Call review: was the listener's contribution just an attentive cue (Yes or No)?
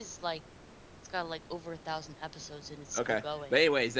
No